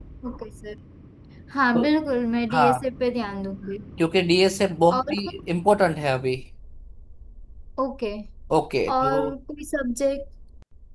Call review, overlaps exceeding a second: none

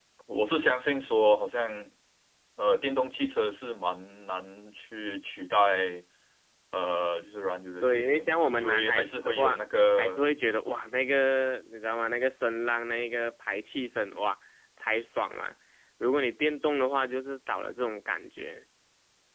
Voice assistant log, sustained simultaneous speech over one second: present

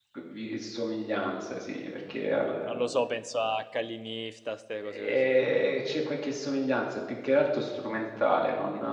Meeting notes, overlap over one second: none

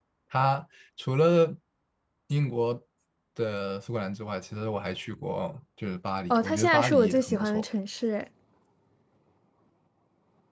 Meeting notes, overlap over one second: present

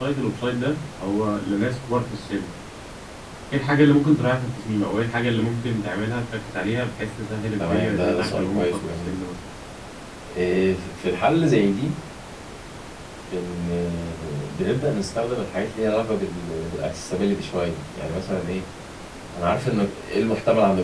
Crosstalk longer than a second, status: present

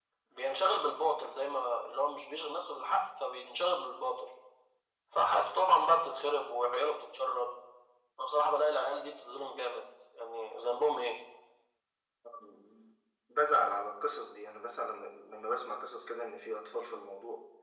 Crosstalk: none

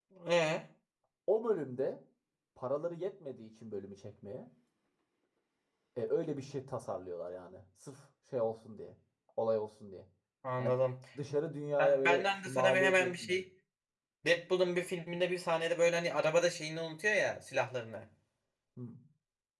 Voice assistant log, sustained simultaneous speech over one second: present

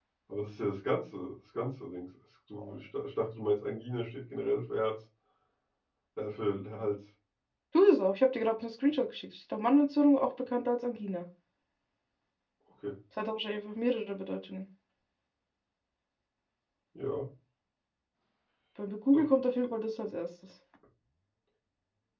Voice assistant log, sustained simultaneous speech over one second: none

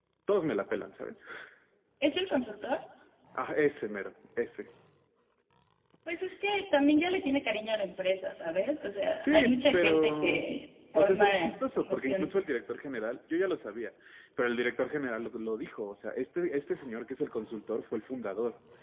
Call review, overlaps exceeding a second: present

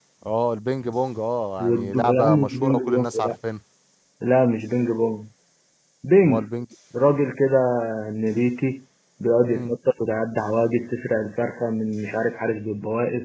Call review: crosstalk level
present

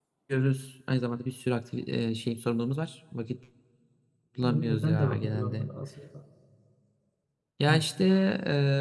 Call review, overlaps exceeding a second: present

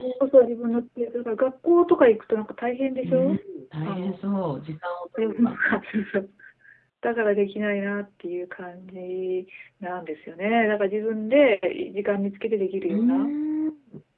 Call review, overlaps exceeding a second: none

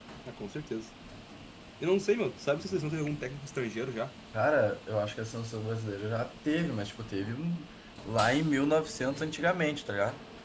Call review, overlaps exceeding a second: none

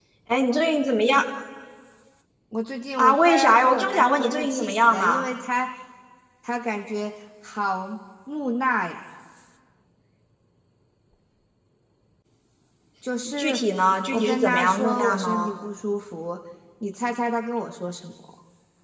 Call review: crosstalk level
present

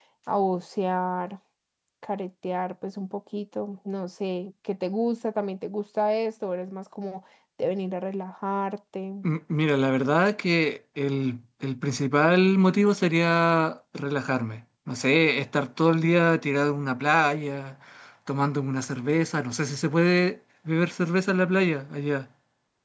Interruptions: none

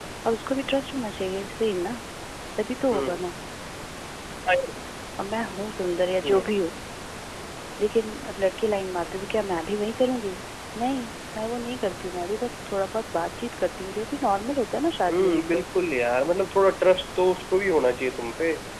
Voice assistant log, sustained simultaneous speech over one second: none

